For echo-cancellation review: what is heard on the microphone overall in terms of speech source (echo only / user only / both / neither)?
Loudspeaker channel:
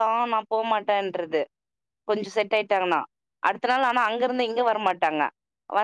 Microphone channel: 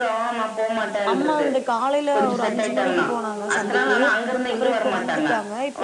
both